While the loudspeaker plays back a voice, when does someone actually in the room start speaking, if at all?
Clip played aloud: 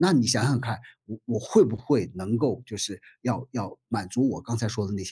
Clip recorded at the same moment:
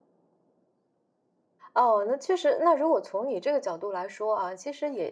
1.7 s

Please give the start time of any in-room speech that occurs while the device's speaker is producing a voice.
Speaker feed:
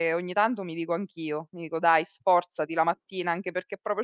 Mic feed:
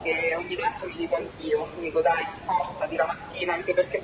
none

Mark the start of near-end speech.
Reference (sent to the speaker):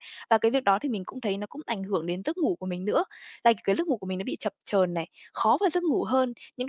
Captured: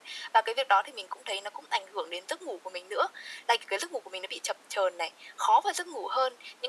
none

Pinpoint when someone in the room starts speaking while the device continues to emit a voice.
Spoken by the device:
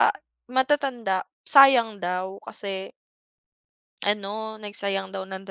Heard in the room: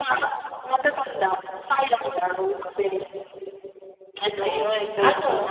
4.4 s

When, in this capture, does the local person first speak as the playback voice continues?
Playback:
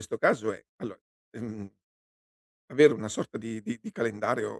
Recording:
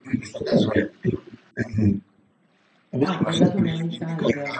3.0 s

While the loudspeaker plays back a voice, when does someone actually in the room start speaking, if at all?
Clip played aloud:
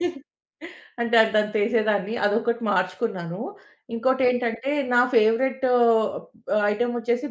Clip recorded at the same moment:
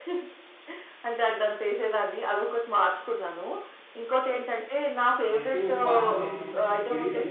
5.3 s

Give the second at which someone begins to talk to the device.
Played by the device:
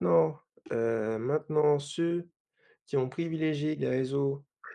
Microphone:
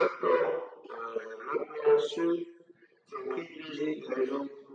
none

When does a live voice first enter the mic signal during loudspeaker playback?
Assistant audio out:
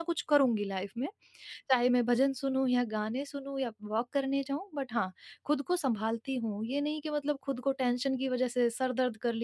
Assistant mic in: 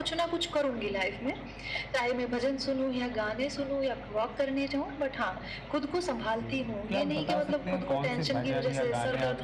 6.2 s

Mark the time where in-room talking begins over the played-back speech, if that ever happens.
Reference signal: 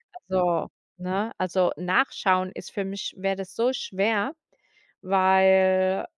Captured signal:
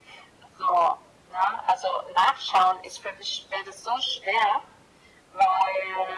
none

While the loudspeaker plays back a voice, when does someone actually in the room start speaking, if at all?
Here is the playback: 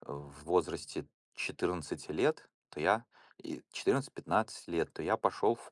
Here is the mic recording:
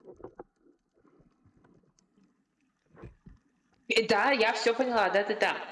3.9 s

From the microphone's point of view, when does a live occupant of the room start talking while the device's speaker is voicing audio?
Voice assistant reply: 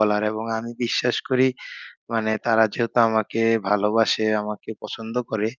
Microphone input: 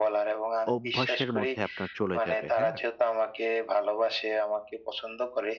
0.7 s

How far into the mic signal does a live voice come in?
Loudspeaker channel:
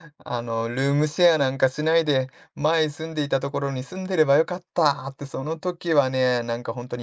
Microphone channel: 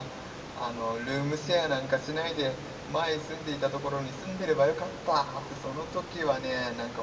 none

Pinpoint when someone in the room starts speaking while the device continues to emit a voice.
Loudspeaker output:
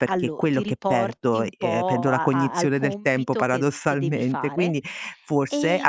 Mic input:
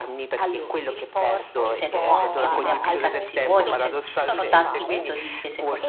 1.6 s

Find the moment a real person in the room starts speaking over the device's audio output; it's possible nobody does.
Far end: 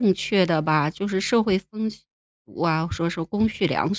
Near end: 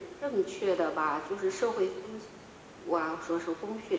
none

